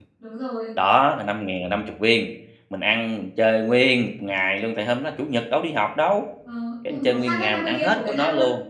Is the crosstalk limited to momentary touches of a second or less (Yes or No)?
No